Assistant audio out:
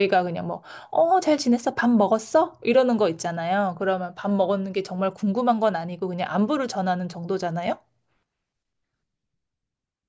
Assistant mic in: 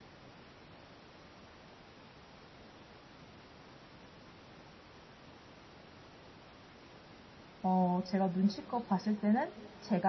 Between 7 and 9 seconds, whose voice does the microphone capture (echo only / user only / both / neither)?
user only